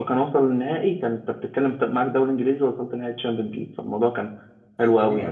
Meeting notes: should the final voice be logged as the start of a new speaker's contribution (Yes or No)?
No